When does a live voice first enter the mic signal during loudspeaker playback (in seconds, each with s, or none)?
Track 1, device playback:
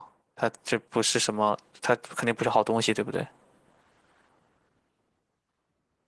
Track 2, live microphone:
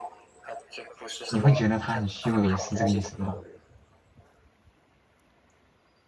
1.3 s